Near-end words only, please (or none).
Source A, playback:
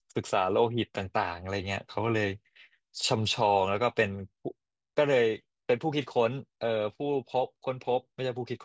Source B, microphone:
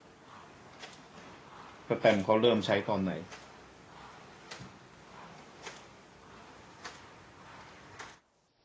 สแตมป์เขาเริ่มใช้ตอนไหน